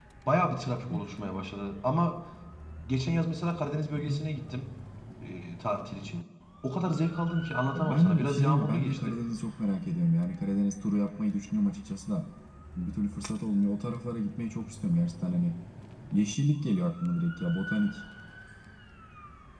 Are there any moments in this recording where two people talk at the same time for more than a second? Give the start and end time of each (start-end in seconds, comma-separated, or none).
7.8-9.2